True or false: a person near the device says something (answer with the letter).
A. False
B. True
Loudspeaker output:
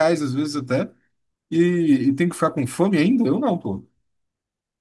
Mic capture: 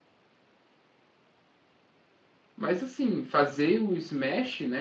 B